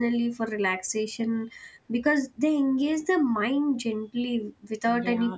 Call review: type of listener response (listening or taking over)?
listening